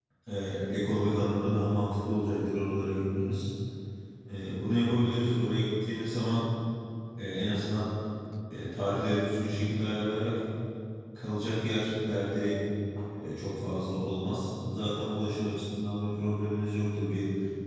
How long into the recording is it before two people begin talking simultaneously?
none

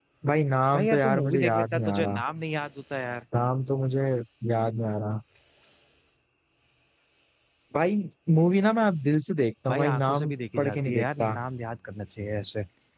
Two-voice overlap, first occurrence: 1 s

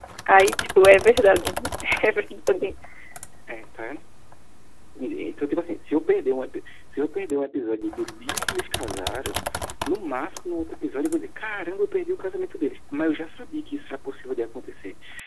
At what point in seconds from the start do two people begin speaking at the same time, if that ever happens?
none

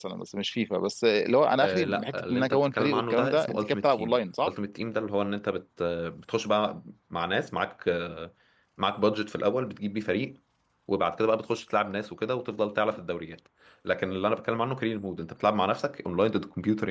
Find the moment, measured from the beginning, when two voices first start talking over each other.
2 s

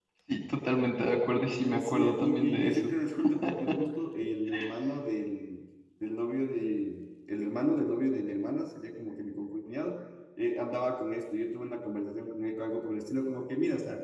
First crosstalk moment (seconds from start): 1 s

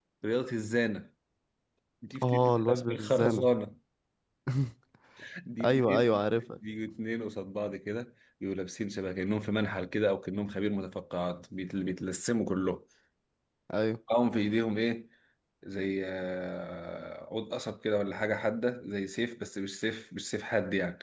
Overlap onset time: 2 s

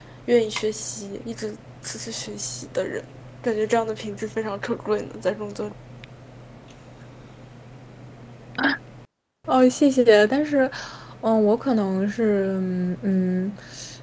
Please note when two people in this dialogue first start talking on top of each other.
none

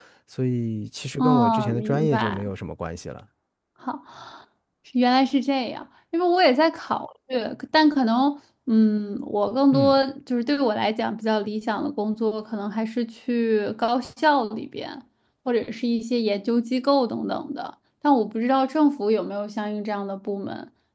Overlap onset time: 1 s

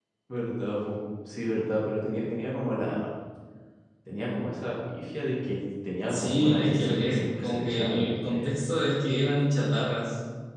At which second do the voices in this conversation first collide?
6 s

